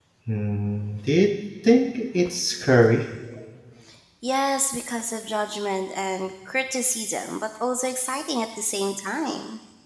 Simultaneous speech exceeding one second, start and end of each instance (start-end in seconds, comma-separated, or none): none